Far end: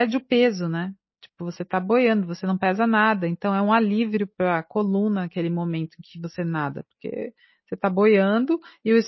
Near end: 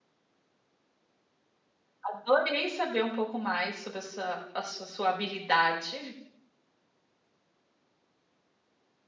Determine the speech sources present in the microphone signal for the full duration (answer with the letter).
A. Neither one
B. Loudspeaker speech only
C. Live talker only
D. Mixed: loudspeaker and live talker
C